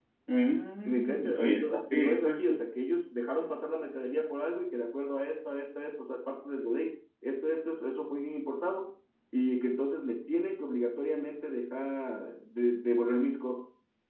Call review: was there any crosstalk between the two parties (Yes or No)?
Yes